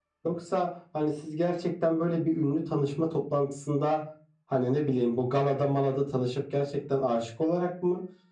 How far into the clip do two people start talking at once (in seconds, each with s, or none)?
none